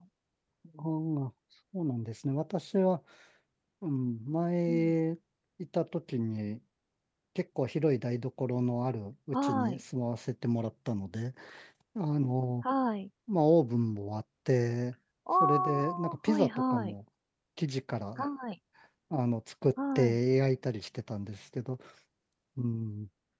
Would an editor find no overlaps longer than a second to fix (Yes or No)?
No